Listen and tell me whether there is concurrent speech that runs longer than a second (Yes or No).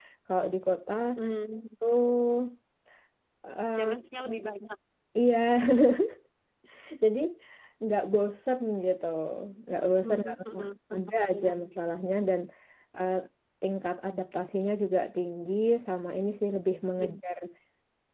Yes